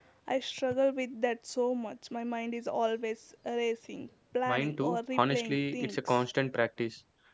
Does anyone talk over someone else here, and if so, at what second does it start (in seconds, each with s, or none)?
4.5 s